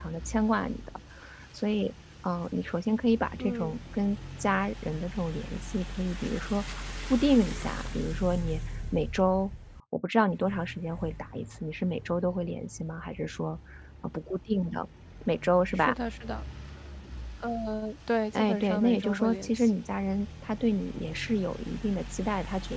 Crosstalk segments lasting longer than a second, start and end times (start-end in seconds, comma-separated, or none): 18.3-19.7